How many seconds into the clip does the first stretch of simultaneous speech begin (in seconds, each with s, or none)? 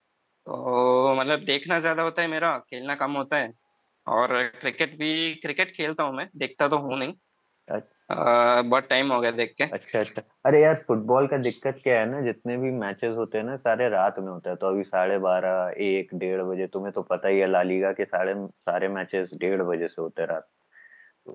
none